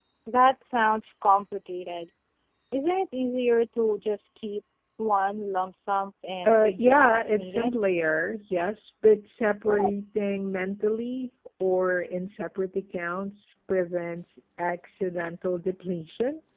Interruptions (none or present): present